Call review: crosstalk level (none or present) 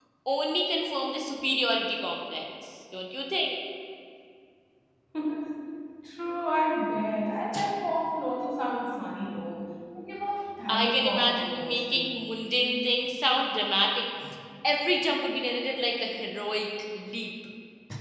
present